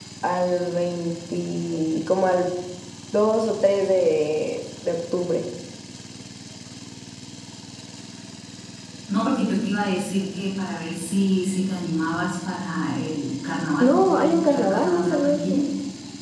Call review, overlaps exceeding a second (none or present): present